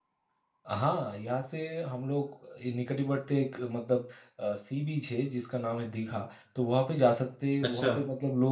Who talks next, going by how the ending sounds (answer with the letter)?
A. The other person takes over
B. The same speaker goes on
B